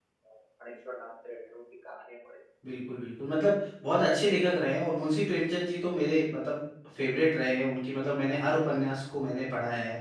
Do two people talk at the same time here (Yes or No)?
No